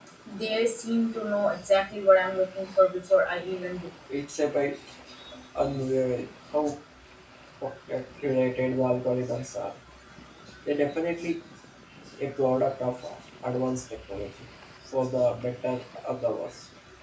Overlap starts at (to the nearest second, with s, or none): none